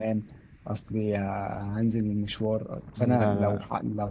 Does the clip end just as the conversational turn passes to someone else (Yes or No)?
No